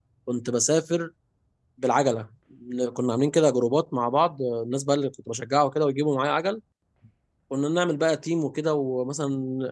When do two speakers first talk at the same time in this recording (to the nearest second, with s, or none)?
none